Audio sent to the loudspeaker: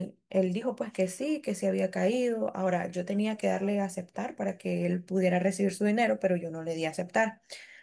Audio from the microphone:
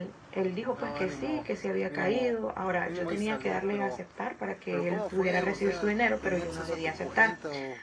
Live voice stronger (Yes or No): No